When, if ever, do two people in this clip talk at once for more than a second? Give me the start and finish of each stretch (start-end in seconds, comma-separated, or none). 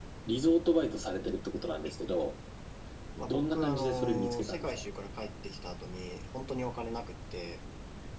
3.3-4.8